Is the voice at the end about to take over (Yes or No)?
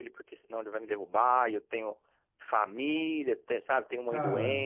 No